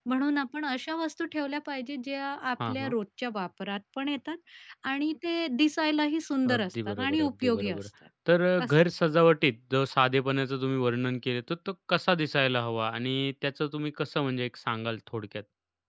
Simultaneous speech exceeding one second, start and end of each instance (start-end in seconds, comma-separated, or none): 6.5-7.9